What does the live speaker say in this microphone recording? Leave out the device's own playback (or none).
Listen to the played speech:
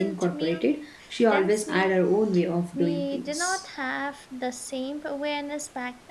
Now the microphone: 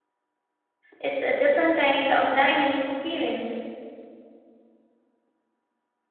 It's a different kind of dining experience.